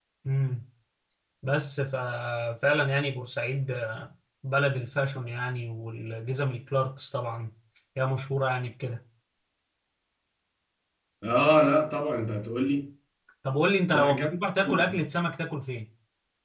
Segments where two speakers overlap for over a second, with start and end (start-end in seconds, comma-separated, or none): none